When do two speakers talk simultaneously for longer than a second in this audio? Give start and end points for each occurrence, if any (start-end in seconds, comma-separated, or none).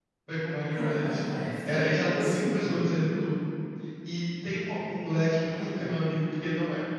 1.6-2.9